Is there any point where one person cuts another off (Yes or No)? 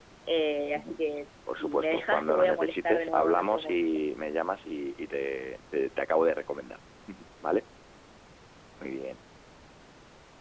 Yes